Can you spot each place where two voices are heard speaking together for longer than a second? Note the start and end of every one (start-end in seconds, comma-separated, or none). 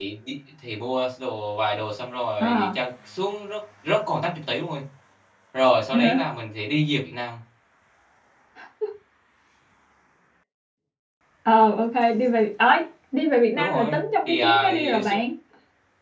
13.5-15.1